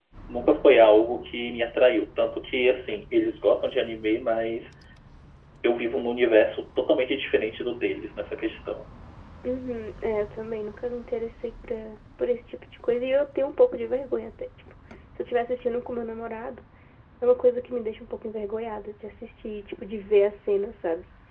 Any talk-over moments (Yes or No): No